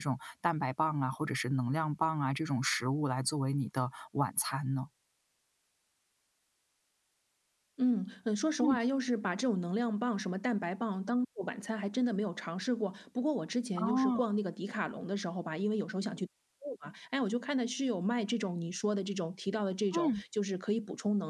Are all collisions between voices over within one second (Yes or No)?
Yes